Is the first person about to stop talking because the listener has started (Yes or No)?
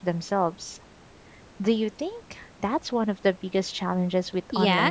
Yes